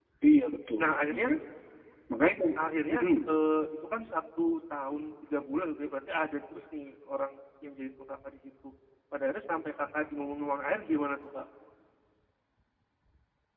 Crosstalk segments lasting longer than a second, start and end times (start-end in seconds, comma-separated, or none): none